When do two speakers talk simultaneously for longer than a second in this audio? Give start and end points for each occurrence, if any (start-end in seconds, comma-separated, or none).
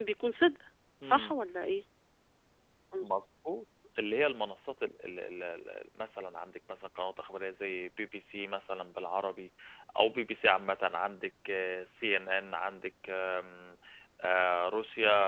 none